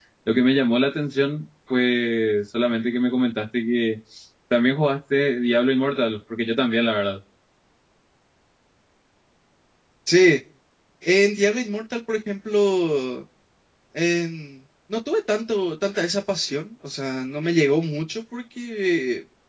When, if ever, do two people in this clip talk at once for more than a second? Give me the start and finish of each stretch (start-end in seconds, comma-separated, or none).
none